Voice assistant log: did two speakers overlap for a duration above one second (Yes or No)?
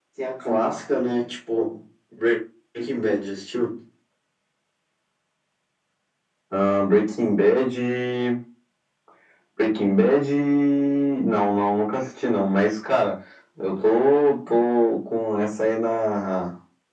No